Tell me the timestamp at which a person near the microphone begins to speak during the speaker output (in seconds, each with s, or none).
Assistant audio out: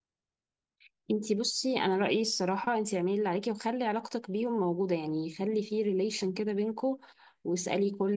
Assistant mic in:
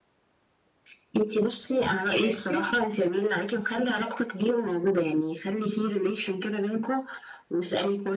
2.2 s